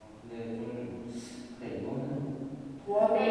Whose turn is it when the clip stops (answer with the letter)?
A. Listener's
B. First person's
A